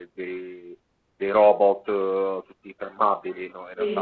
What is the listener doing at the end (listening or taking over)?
listening